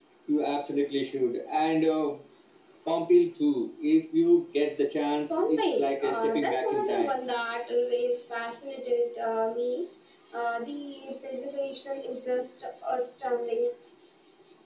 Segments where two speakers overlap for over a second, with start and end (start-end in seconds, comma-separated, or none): 5.3-7.1